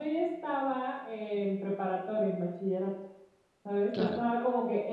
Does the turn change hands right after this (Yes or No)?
No